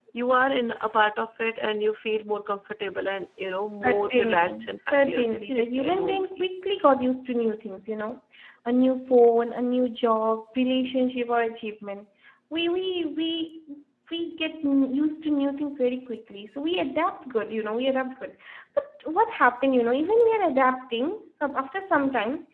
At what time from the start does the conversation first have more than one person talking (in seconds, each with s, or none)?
3.8 s